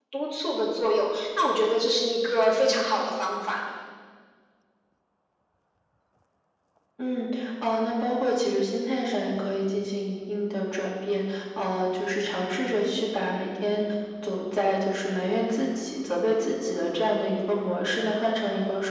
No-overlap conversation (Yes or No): Yes